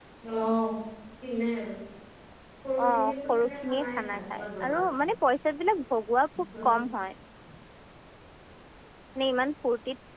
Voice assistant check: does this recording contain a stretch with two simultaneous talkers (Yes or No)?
Yes